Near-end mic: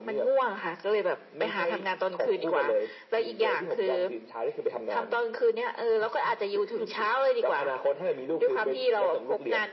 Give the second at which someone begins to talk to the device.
none

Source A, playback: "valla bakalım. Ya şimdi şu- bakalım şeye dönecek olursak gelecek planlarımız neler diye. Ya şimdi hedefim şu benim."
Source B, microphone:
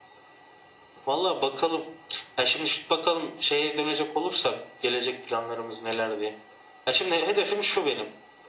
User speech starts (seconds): none

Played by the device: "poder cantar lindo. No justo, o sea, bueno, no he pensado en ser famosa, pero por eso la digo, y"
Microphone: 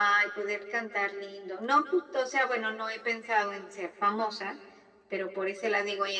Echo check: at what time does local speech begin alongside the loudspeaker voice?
none

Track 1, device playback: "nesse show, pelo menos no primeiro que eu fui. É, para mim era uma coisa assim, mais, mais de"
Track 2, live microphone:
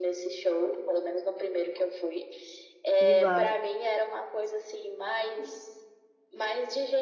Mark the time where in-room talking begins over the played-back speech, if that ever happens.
3.0 s

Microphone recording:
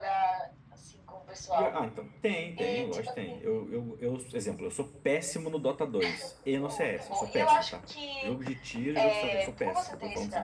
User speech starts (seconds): 1.5 s

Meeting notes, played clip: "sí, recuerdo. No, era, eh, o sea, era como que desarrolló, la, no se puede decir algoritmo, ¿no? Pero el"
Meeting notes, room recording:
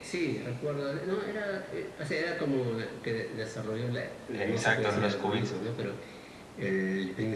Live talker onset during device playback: 4.3 s

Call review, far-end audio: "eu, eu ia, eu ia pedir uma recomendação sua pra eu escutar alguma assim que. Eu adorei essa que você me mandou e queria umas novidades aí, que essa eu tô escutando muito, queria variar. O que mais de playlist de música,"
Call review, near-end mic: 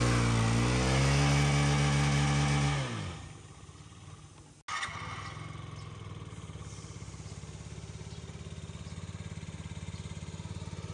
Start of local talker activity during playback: none

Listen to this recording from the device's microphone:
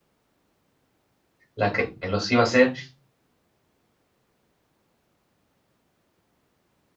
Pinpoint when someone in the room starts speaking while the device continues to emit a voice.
1.5 s

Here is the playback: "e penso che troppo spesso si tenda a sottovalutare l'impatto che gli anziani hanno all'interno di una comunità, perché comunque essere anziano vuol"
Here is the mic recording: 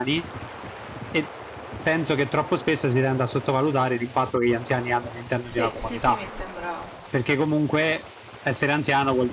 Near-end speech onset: 5.4 s

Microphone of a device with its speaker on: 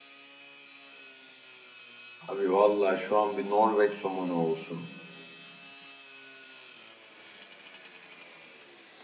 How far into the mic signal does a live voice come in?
2.2 s

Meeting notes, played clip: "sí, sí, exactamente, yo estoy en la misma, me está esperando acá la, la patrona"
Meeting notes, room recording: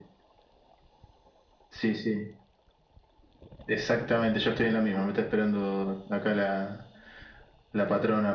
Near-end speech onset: none

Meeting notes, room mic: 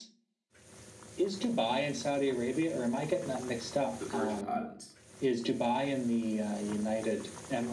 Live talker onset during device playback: 3.9 s

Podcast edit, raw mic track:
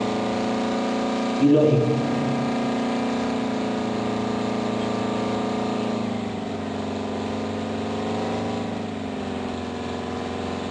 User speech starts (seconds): 1.4 s

